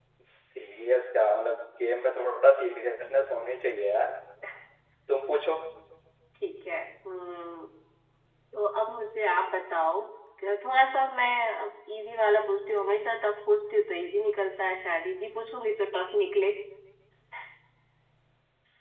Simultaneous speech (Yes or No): No